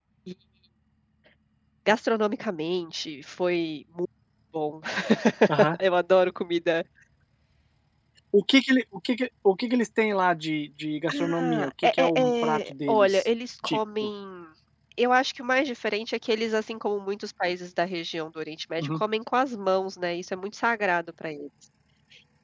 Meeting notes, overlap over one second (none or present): present